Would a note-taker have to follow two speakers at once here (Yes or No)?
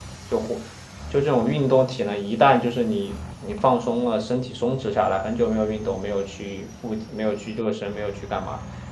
No